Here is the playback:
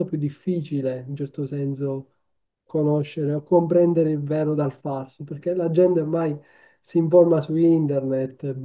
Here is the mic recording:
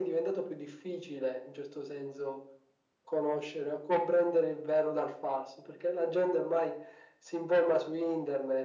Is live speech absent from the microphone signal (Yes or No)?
Yes